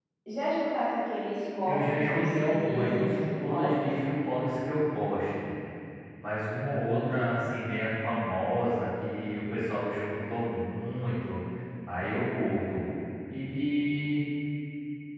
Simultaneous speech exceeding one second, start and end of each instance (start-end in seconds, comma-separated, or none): 1.6-3.8